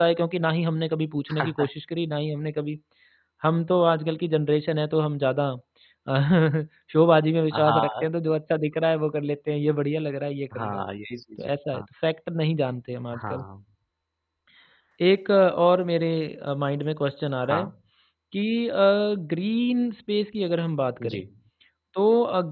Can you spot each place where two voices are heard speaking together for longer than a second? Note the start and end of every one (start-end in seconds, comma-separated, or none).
none